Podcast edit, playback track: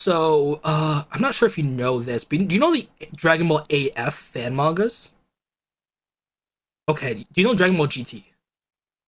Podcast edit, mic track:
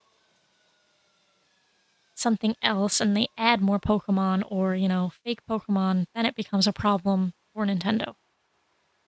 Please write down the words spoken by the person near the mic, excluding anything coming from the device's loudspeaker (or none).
something else and they add more Pokemon or, you know, fake Pokemon, then it becomes a problem for Nintendo.